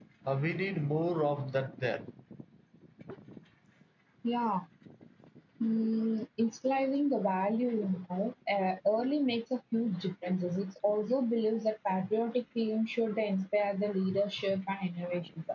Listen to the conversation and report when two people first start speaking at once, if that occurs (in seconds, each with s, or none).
none